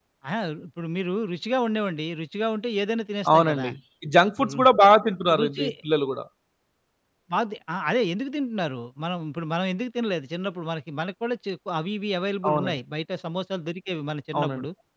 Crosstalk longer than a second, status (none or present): none